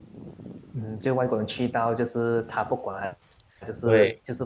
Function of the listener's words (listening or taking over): listening